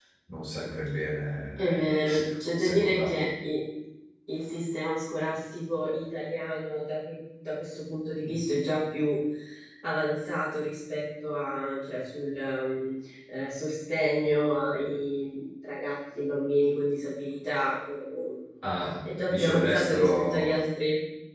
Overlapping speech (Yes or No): Yes